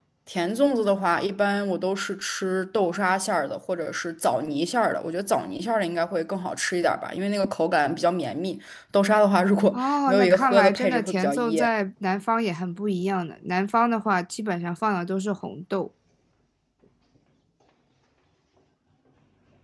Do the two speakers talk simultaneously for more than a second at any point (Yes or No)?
Yes